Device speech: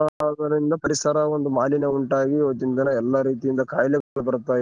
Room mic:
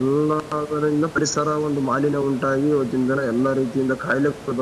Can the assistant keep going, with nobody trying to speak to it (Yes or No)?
Yes